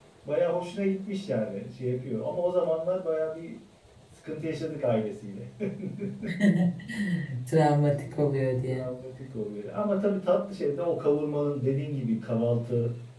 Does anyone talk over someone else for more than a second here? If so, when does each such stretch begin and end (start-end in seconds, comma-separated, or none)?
none